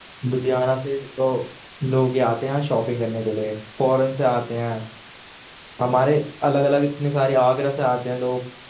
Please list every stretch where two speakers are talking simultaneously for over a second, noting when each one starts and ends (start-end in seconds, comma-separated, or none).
none